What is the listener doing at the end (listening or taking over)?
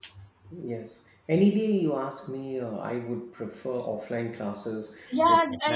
taking over